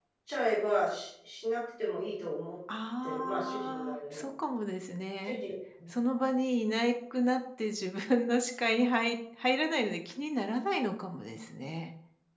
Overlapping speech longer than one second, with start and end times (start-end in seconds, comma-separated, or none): 3.0-4.3